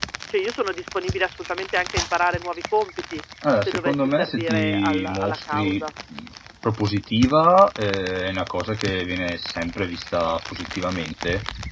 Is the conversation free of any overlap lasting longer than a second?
No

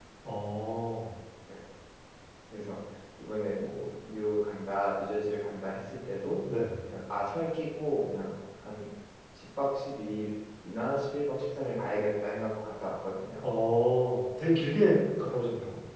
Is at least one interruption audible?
No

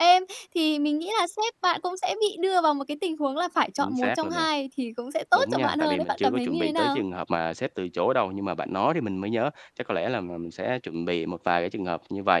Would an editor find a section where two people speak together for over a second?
Yes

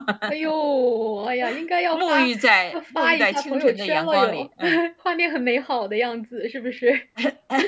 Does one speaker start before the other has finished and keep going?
Yes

